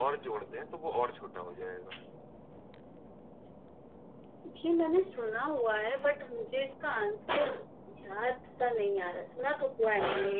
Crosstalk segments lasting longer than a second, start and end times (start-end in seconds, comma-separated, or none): none